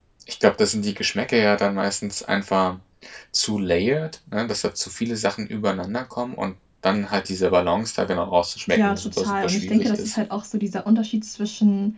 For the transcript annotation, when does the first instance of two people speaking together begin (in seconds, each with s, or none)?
8.7 s